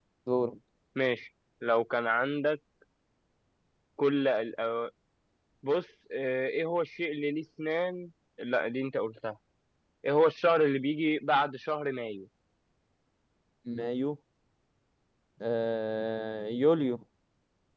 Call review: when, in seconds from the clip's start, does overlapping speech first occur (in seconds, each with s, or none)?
none